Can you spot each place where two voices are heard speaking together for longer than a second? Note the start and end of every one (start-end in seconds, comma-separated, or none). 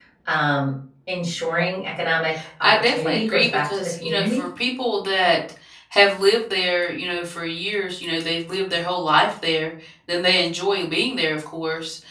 2.6-4.4